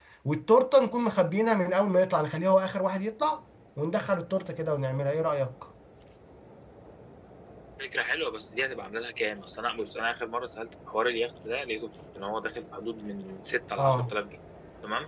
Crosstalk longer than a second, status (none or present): none